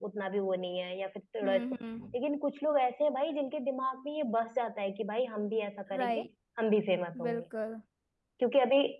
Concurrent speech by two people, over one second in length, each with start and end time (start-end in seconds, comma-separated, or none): none